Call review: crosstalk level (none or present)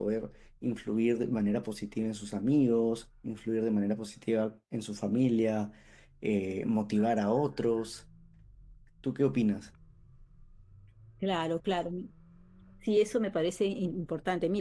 none